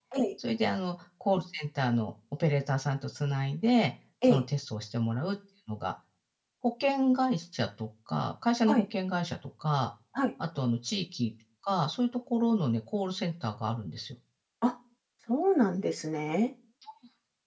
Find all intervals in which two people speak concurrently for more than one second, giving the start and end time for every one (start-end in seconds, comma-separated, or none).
none